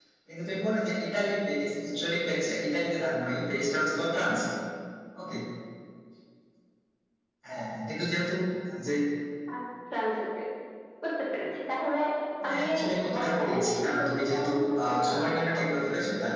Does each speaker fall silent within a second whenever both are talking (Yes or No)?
No